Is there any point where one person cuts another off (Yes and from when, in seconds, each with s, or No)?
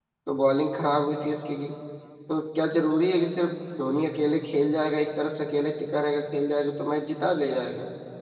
No